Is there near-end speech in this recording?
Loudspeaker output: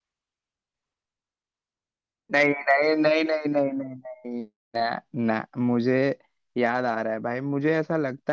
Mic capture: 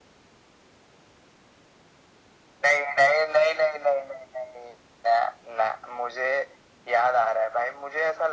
No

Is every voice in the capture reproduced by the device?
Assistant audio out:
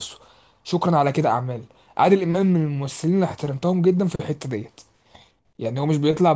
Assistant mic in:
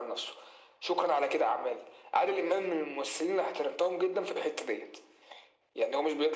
Yes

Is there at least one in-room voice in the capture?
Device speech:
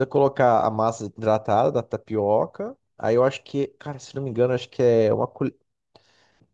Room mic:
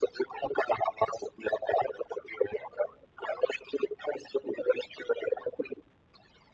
No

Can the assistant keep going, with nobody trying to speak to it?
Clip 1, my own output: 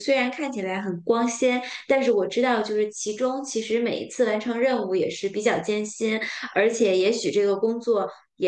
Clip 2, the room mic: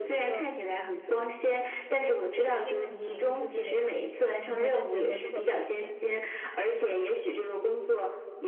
No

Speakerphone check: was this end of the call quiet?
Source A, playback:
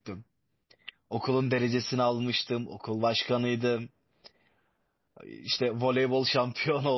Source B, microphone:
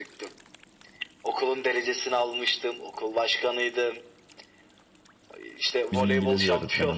No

